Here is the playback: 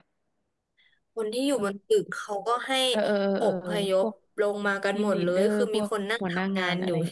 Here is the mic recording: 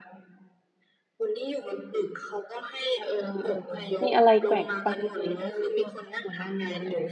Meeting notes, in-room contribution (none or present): present